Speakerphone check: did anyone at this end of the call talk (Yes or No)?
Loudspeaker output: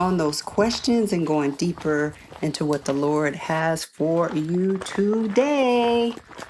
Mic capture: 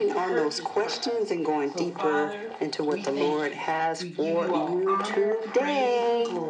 Yes